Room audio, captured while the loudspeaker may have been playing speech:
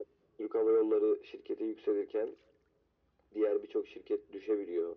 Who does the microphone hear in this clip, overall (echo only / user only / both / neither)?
echo only